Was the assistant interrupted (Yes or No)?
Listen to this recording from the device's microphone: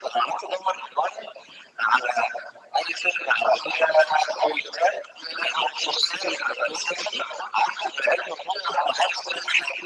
No